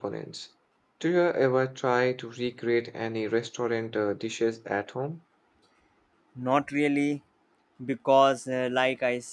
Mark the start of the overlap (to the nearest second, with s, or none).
none